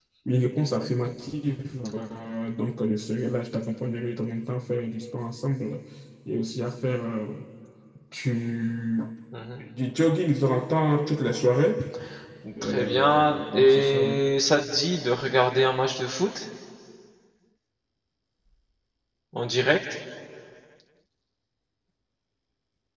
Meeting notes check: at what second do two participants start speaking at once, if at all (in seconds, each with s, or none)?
12.6 s